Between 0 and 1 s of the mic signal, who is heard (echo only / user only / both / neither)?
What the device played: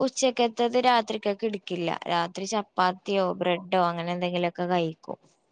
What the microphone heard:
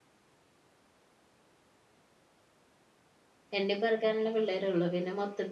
neither